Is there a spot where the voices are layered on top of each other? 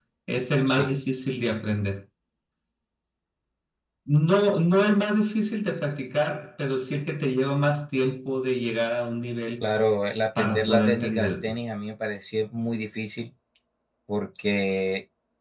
Yes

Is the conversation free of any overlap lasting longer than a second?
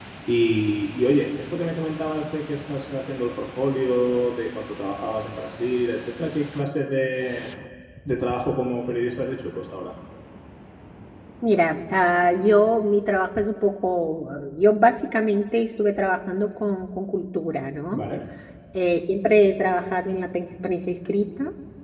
Yes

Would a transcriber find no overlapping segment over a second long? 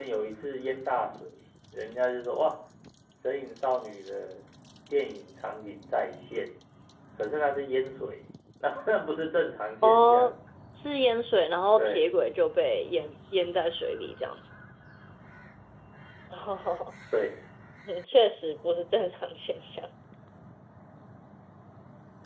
Yes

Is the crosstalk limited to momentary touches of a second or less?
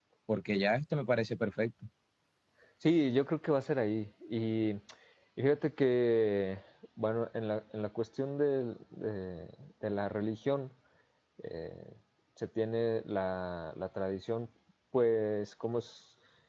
Yes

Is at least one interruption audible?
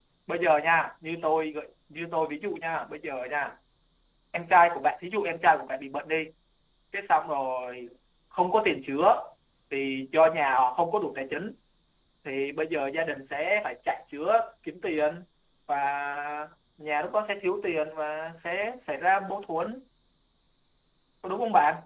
No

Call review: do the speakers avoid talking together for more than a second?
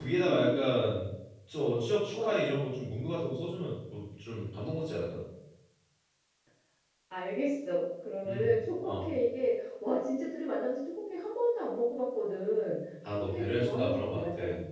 No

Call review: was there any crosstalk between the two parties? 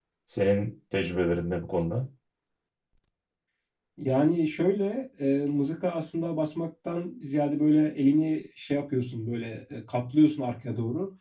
No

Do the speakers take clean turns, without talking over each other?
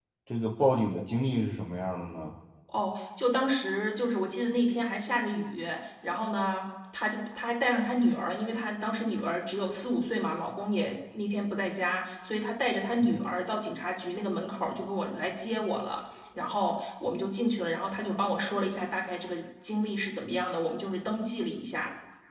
Yes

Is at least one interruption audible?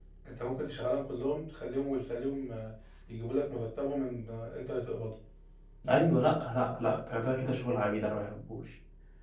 No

